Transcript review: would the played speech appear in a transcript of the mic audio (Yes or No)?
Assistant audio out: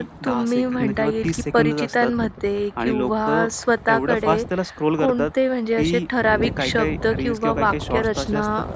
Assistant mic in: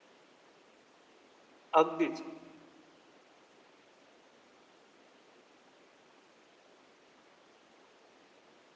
No